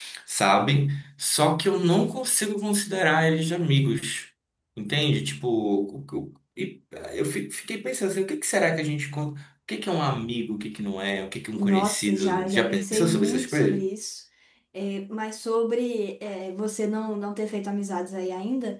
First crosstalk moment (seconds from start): 12 s

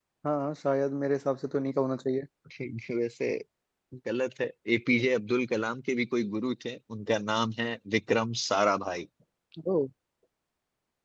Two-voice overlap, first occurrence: none

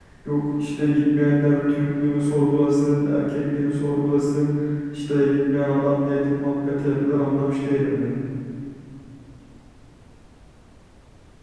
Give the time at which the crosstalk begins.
none

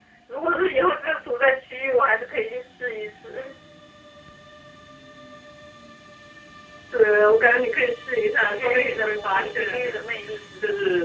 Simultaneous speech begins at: 8 s

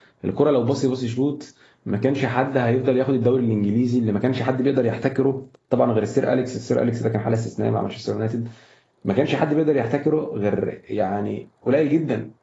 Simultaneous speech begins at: none

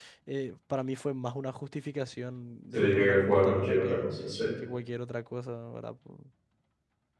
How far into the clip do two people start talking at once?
3 s

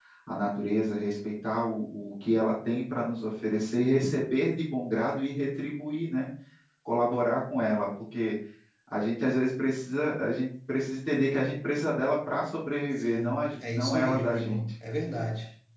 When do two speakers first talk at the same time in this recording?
13 s

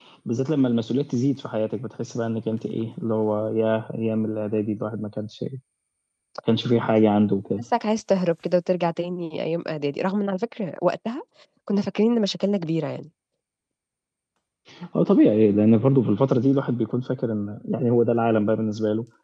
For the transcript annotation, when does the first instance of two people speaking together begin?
none

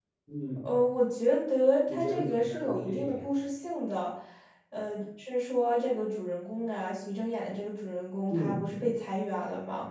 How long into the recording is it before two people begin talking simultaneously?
2 s

